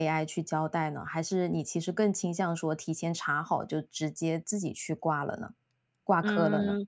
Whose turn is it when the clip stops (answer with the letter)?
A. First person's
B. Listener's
B